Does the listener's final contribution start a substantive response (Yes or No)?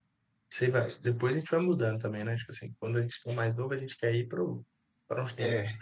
No